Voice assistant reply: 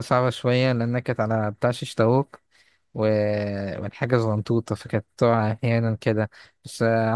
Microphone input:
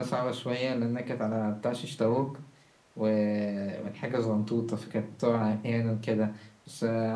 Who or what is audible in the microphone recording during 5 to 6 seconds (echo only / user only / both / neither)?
echo only